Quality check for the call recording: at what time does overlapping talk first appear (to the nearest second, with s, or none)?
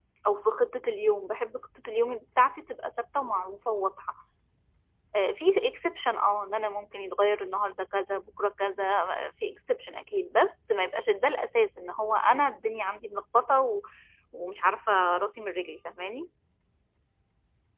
none